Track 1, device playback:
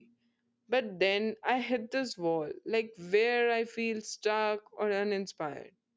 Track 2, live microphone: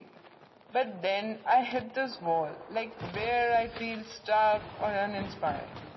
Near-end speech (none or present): none